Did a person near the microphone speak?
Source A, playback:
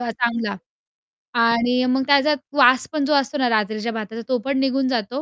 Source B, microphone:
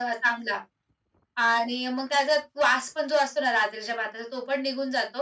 No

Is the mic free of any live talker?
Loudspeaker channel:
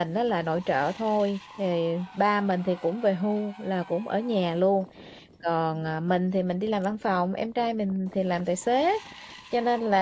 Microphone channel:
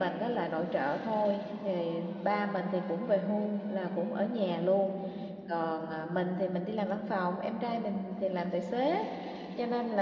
Yes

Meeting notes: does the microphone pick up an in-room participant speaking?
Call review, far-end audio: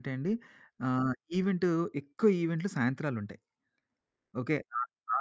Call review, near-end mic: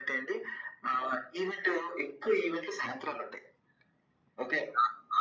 No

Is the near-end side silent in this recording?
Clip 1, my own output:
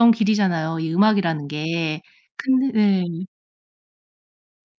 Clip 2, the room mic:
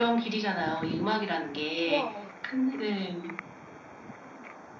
No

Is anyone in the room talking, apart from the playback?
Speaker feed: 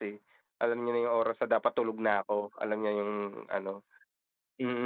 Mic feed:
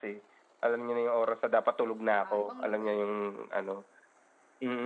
Yes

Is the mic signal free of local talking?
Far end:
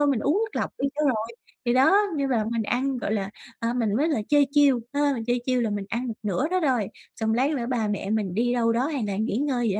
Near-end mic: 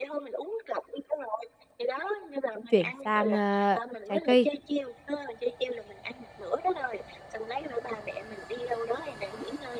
No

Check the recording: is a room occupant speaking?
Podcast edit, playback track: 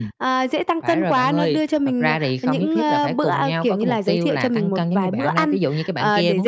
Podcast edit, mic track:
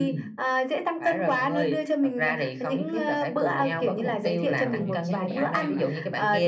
Yes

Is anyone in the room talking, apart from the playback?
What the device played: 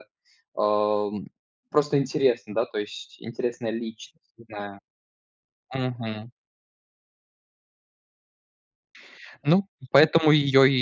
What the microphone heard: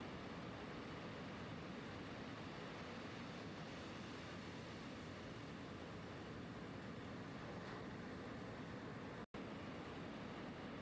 No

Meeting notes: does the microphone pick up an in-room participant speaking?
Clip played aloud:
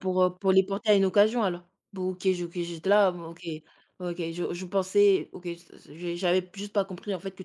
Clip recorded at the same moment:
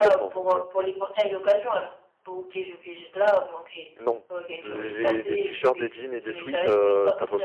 Yes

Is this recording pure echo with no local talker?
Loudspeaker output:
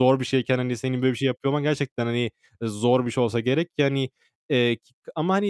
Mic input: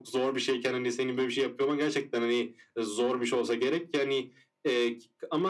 Yes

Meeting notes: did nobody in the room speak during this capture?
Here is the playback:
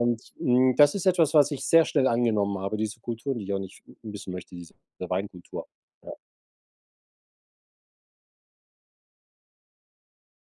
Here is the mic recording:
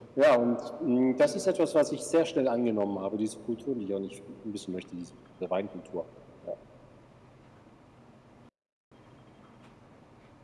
Yes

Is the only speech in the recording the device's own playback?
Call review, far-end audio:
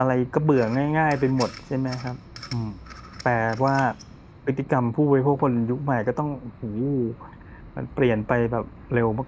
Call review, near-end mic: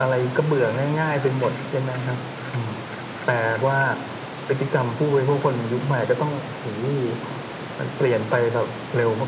Yes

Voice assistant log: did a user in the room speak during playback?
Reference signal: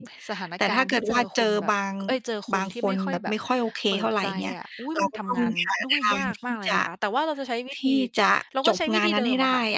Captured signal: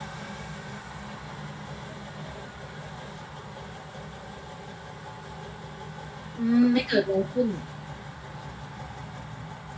Yes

